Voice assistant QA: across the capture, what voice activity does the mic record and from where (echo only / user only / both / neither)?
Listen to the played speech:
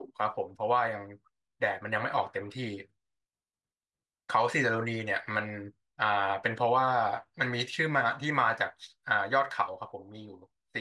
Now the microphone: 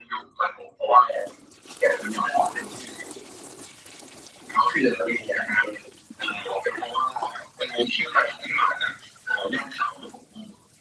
echo only